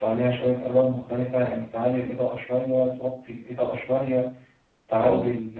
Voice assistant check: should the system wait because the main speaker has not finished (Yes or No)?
Yes